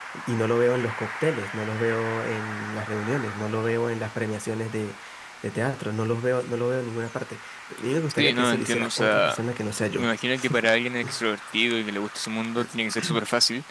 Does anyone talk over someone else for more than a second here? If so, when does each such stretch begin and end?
8.2-9.4

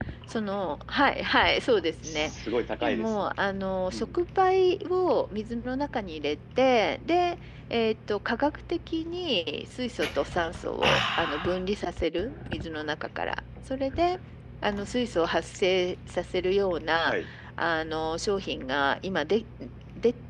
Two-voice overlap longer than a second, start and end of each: none

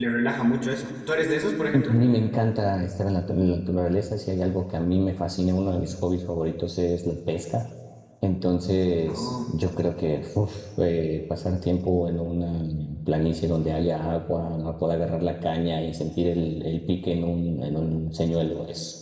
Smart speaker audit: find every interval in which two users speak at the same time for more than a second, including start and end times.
none

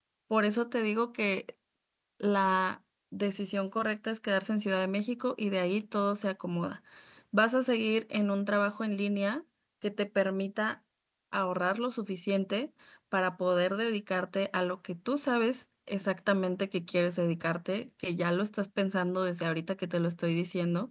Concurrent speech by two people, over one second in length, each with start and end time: none

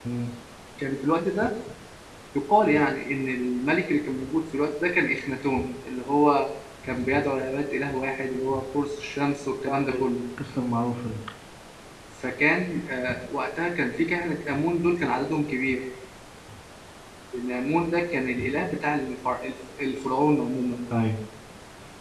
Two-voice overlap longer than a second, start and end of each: none

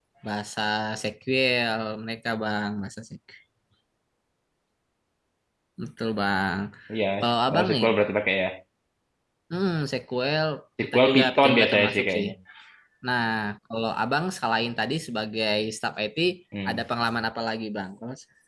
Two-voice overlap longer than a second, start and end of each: 10.8-12.3

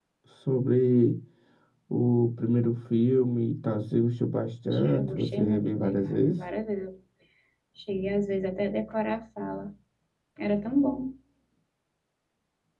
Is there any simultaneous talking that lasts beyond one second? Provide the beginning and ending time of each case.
4.7-6.5

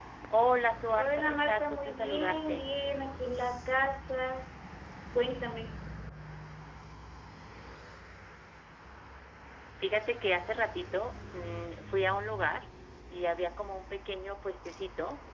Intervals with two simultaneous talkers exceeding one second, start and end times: 0.9-2.7

